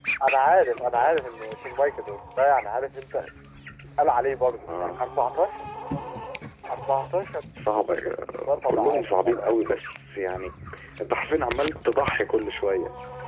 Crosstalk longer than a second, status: present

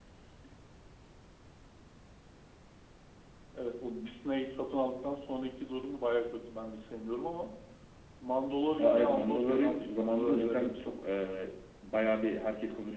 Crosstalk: present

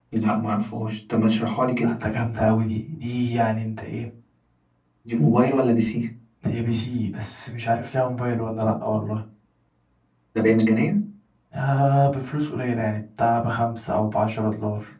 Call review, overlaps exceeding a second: none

